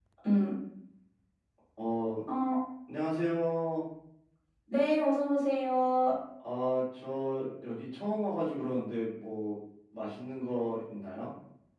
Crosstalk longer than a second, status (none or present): none